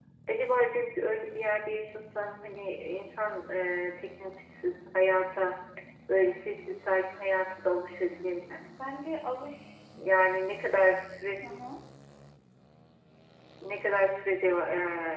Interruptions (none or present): none